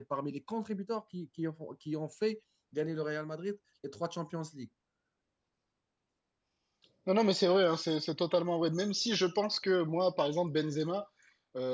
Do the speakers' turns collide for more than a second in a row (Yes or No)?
No